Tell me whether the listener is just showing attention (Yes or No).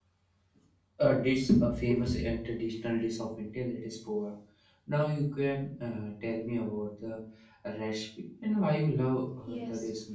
No